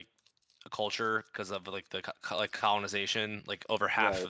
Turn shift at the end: No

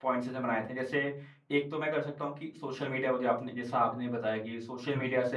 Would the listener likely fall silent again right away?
Yes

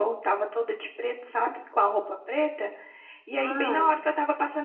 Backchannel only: Yes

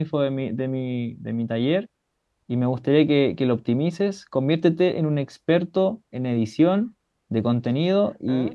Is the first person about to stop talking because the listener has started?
No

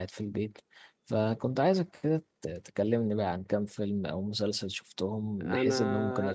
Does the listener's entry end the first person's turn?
Yes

